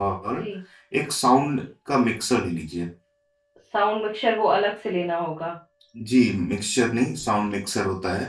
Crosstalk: none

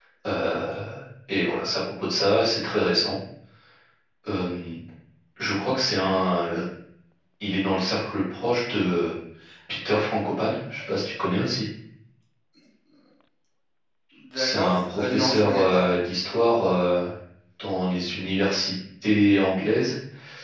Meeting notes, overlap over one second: present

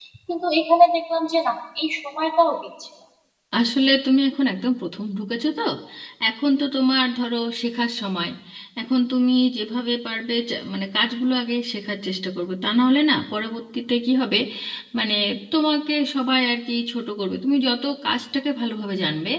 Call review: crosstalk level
none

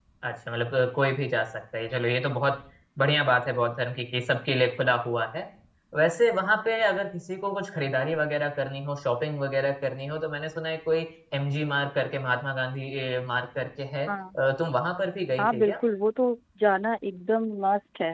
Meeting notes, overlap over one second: none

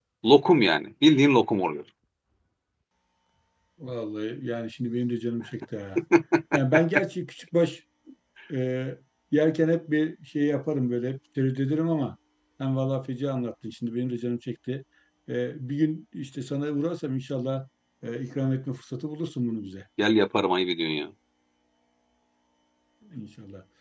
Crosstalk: none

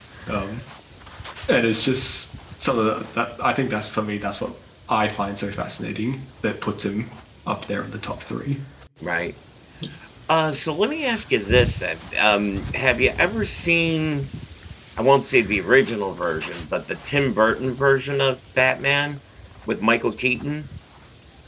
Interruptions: none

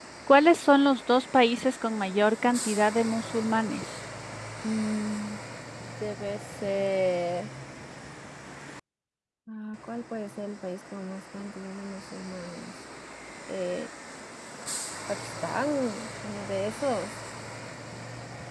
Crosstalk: none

